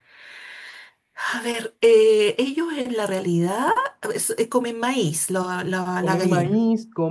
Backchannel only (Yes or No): No